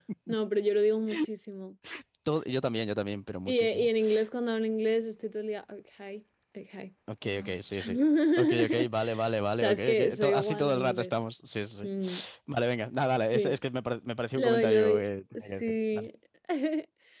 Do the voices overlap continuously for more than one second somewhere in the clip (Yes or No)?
Yes